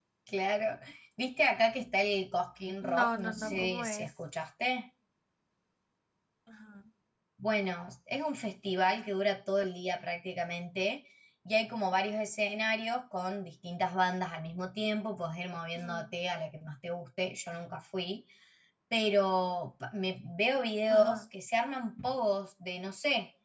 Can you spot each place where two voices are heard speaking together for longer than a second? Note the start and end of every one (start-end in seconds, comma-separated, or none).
2.8-4.1